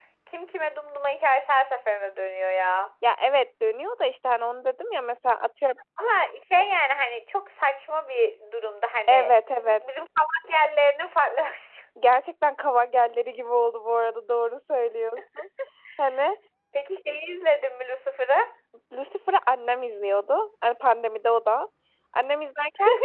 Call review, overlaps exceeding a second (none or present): none